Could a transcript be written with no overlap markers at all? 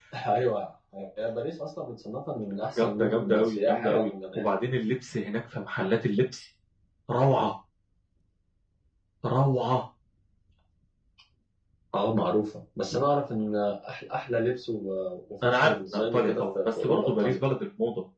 No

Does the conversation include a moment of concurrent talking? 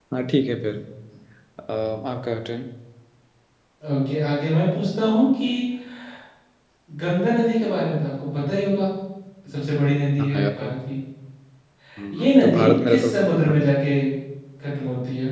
Yes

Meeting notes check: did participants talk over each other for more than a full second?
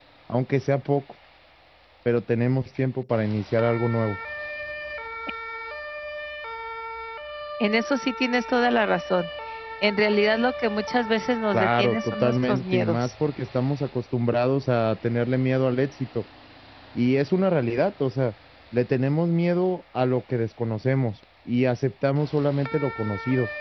Yes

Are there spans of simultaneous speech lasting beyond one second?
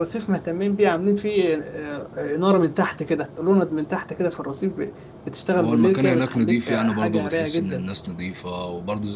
Yes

